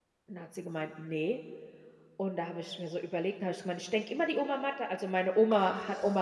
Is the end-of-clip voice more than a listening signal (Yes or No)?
No